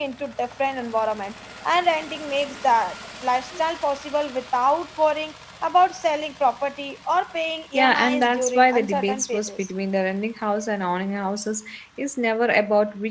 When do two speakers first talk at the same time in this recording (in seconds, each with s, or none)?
7.7 s